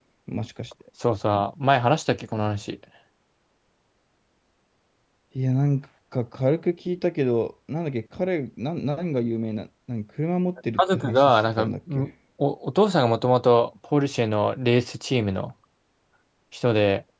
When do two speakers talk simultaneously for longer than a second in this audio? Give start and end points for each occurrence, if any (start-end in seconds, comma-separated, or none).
10.8-12.1